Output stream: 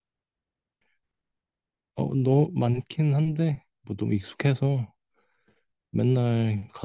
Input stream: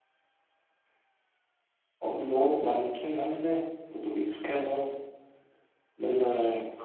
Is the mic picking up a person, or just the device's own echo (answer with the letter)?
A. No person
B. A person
A